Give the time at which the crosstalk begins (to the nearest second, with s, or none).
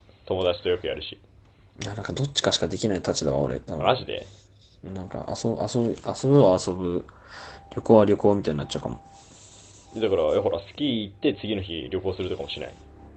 none